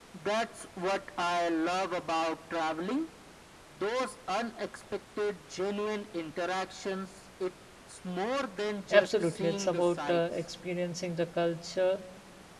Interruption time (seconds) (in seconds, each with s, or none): 8.9 s